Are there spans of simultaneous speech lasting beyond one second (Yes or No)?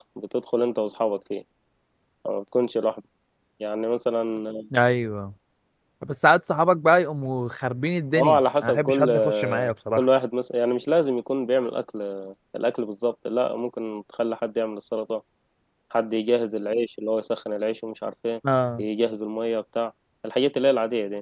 Yes